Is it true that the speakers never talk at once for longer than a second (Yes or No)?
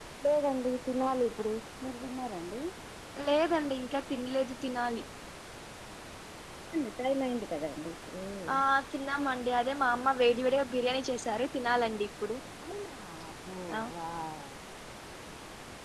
Yes